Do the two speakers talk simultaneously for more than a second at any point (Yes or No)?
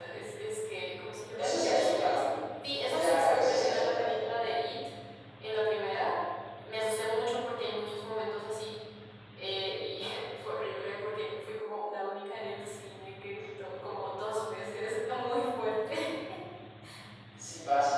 Yes